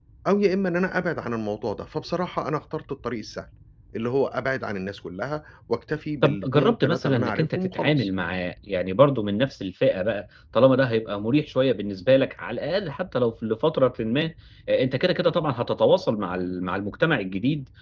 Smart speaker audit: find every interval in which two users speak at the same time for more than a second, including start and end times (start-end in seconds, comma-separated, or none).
6.2-8.1